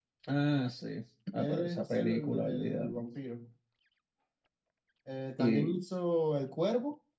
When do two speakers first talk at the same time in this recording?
1.4 s

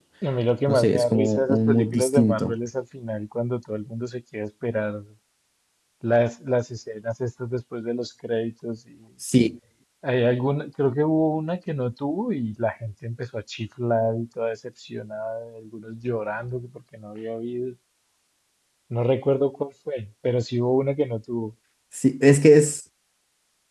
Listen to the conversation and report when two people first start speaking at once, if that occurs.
0.7 s

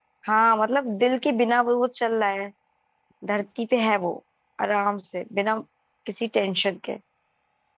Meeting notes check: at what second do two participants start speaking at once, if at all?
none

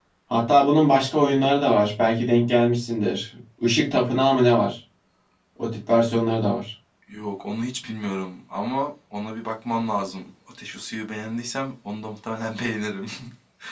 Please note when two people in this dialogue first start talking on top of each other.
none

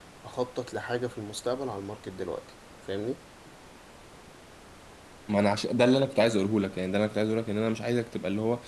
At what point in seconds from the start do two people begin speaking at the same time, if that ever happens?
none

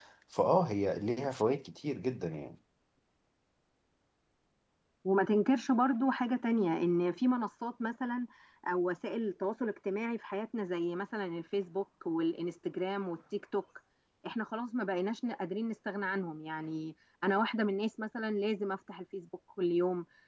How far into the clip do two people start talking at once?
none

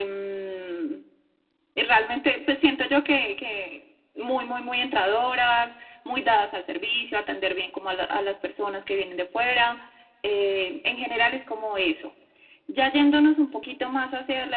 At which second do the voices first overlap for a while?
none

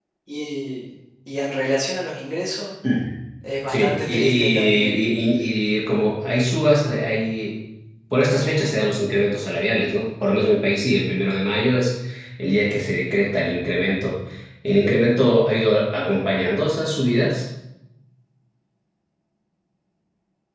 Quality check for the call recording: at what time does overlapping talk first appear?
3.6 s

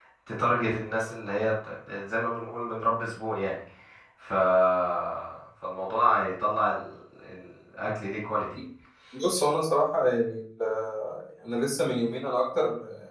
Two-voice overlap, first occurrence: none

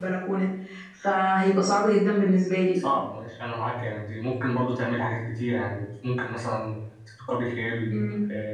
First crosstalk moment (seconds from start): none

